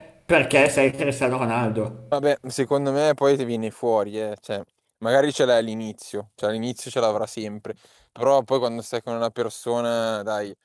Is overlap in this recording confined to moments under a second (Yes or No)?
Yes